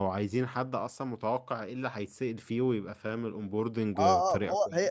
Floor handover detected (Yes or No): Yes